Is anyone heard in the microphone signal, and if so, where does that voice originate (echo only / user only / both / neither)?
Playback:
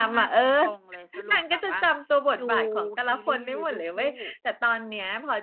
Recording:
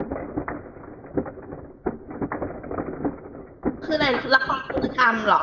user only